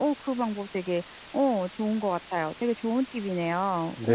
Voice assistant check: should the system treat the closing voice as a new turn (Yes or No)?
Yes